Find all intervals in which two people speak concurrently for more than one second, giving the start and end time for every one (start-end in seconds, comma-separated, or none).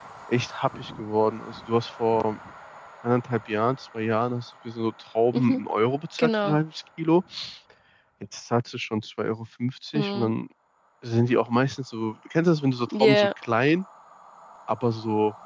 none